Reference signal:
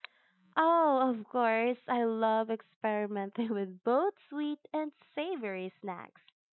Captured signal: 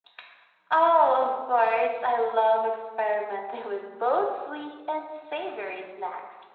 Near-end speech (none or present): none